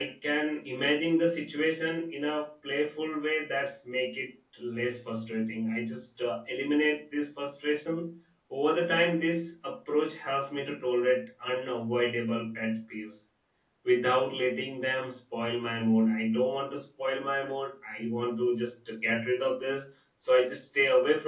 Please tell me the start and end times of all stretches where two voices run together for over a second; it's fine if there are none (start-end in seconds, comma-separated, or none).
none